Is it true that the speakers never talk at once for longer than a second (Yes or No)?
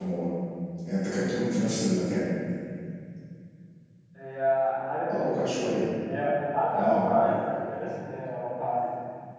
Yes